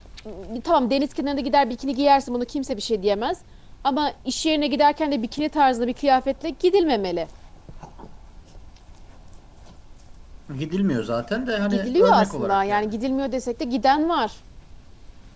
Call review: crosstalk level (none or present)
present